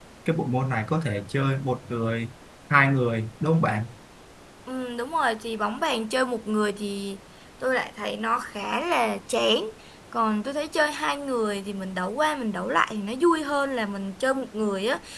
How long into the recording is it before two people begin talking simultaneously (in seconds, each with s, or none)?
none